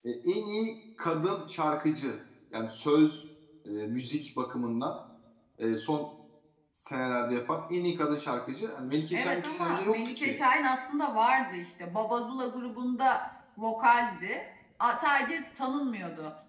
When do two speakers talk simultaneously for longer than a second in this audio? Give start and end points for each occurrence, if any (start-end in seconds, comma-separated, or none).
9.1-10.4